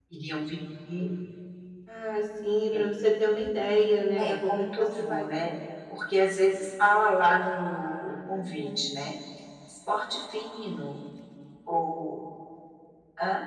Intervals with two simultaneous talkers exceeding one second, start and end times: 4.2-5.5

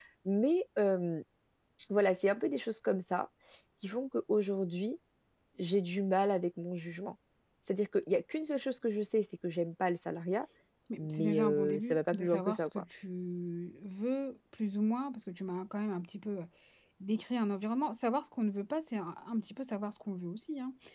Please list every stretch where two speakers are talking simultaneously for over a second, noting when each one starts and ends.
11.0-12.7

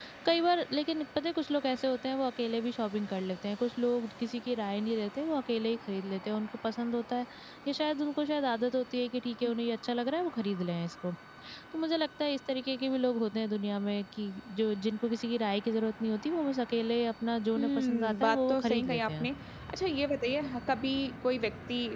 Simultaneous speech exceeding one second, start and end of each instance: 17.6-19.3

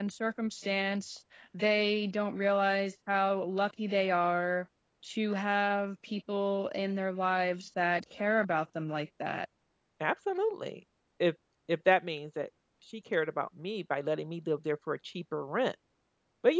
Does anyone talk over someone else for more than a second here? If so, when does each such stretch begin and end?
none

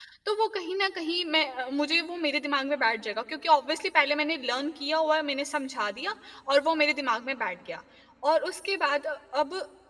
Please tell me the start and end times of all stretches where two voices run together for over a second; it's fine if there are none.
none

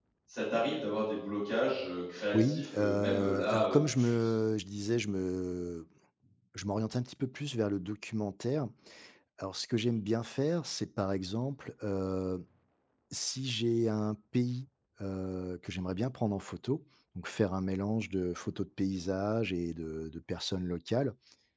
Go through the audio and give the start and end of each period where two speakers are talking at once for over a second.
2.3-4.3

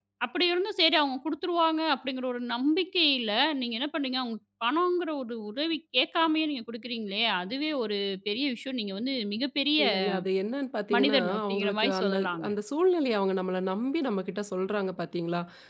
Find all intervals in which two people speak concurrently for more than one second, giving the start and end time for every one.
10.9-12.5

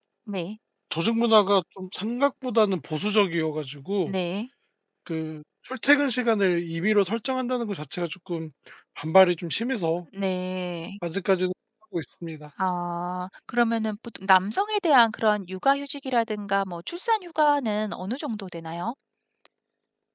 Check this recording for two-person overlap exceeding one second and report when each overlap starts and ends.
none

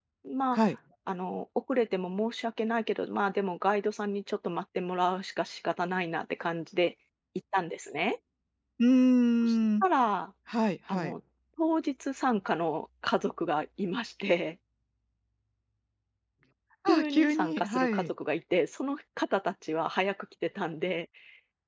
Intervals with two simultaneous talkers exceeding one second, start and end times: 16.9-18.1

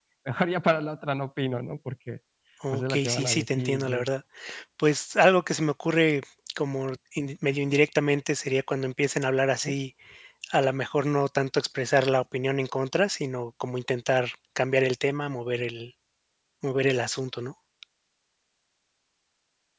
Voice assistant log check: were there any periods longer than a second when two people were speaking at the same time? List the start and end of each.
2.7-4.1

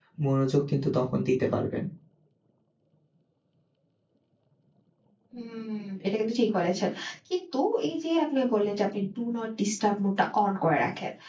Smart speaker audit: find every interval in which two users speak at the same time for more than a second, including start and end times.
none

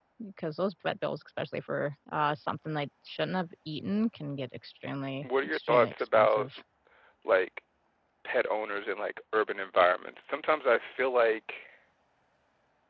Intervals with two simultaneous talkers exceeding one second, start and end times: 5.2-6.5

